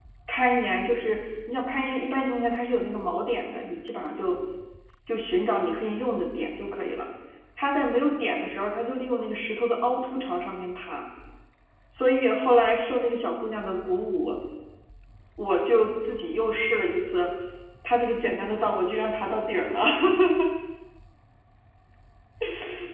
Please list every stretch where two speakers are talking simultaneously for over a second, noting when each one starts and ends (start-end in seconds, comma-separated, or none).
none